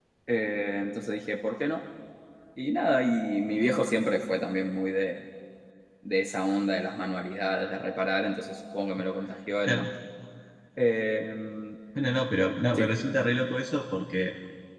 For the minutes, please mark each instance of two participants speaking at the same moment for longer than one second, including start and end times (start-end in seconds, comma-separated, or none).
none